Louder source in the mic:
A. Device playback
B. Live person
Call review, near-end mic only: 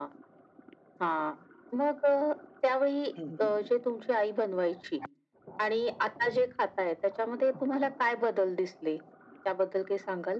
A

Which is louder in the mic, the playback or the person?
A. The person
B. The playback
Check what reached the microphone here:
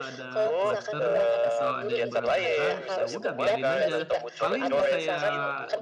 B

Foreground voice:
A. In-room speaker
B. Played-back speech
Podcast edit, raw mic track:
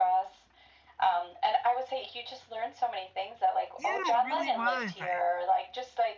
B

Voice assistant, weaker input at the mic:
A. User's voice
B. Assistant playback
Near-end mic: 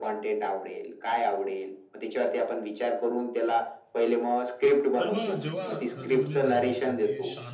A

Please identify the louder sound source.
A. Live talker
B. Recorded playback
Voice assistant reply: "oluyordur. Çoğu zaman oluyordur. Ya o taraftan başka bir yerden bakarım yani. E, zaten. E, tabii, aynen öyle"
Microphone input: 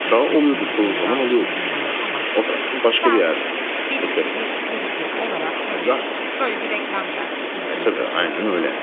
B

